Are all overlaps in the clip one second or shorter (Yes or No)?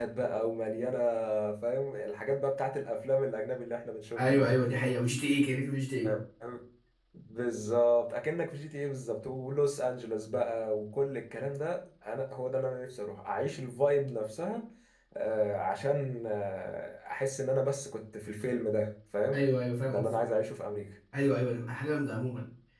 Yes